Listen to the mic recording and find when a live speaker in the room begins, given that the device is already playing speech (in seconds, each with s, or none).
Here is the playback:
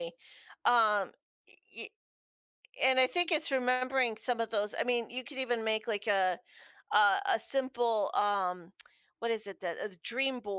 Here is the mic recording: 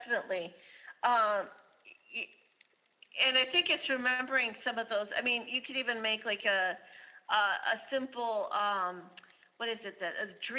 none